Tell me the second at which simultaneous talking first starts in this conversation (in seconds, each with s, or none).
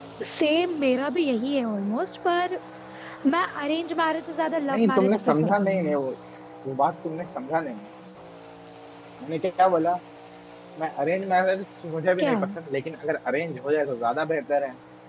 4.7 s